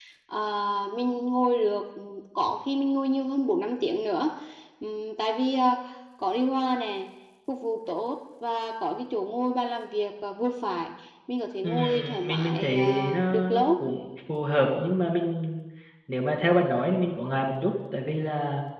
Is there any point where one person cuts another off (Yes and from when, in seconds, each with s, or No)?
Yes, from 11.6 s